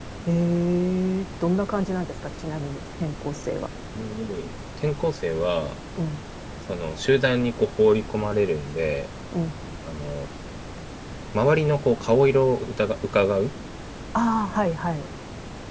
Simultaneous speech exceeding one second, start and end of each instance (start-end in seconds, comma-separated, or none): none